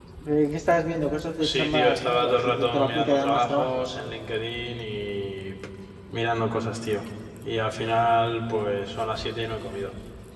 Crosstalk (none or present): present